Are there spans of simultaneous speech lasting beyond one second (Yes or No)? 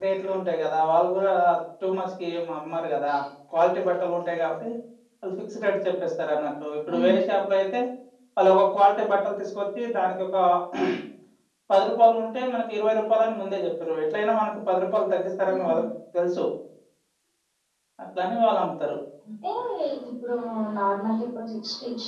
No